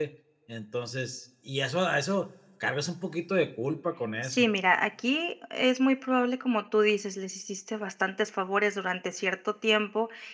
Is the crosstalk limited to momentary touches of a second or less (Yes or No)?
Yes